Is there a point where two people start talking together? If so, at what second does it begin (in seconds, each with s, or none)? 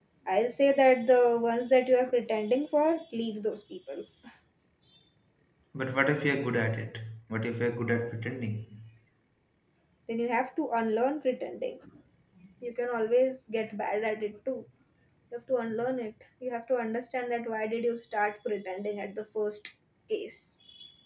none